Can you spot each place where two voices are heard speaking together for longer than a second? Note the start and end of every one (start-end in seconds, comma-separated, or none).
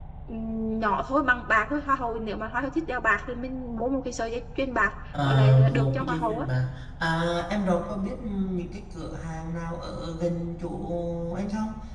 5.2-6.5